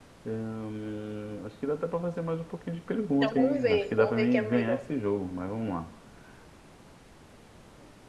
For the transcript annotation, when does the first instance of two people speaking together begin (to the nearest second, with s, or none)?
3 s